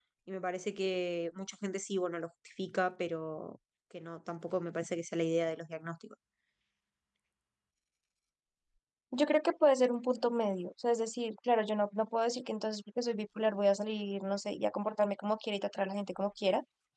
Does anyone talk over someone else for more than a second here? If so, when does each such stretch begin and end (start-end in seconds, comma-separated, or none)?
none